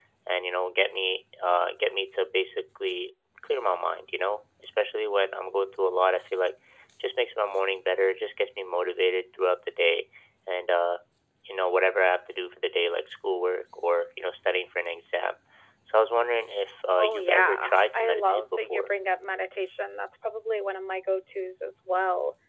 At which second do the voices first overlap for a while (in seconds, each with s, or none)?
17.0 s